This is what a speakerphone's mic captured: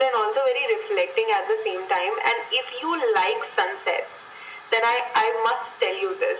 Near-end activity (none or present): none